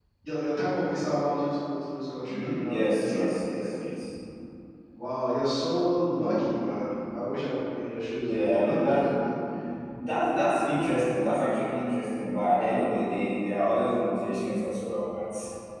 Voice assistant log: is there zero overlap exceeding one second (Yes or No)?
No